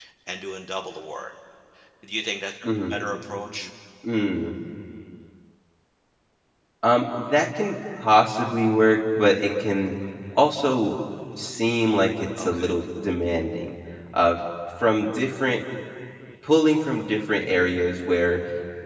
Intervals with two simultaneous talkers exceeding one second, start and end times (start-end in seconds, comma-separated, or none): none